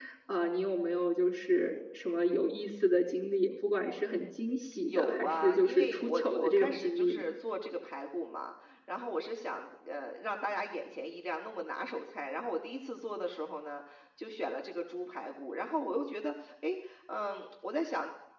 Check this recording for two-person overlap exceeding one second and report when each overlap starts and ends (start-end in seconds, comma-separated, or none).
4.8-7.2